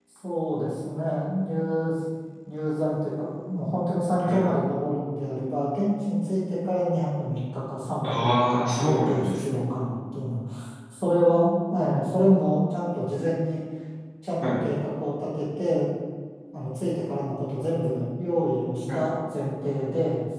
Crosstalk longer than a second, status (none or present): present